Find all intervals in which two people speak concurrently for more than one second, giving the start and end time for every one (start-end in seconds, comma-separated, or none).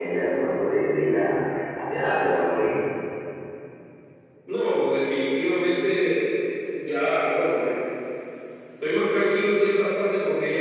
none